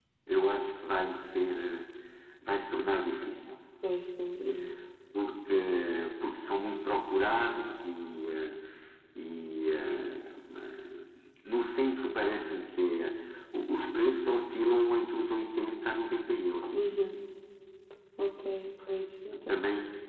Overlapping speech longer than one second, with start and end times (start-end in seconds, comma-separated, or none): none